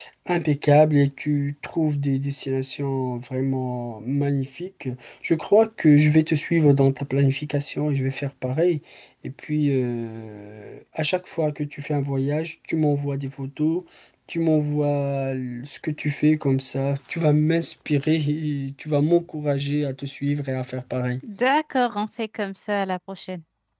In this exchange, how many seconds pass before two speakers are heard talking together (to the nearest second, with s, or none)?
none